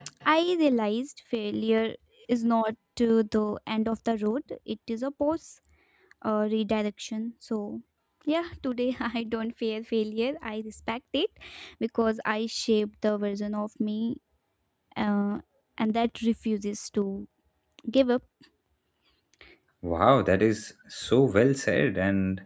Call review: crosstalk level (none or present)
none